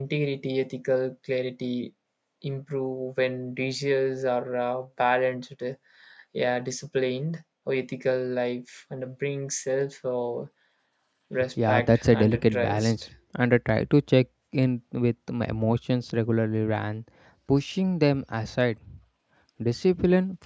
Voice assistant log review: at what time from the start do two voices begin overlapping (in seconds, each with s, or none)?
11.7 s